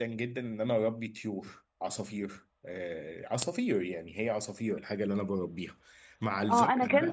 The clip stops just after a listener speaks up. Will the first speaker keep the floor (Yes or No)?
No